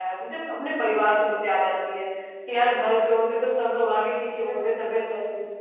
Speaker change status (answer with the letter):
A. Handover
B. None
B